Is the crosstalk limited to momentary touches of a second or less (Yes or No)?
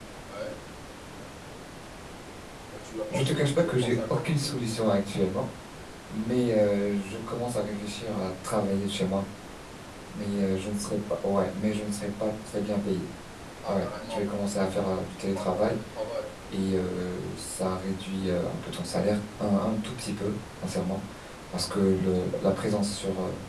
No